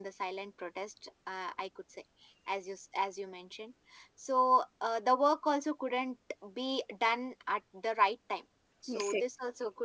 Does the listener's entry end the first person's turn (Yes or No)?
No